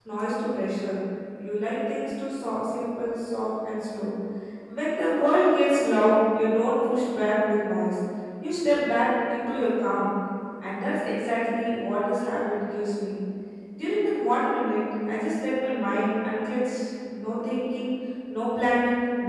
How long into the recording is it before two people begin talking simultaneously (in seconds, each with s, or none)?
none